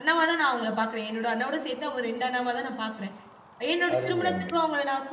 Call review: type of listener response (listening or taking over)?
listening